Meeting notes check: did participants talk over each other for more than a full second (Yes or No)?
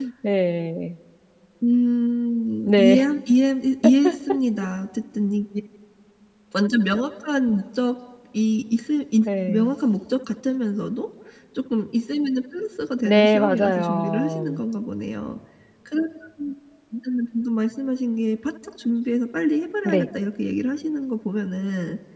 Yes